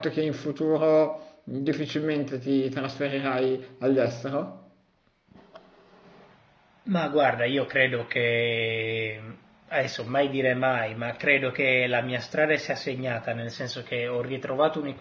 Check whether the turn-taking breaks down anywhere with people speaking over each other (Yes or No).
No